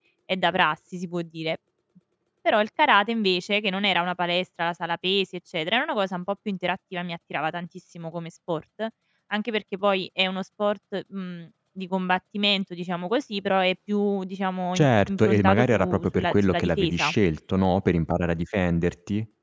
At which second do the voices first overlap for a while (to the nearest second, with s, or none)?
15 s